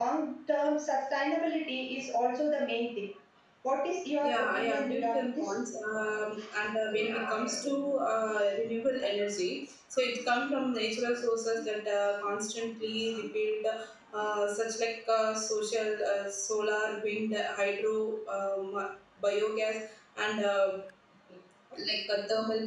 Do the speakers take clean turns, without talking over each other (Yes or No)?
No